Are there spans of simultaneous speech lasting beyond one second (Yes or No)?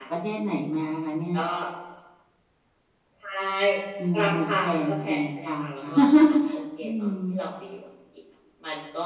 Yes